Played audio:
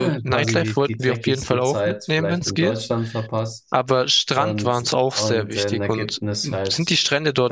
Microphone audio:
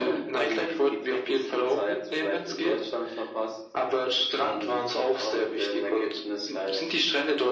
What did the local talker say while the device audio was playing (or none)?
none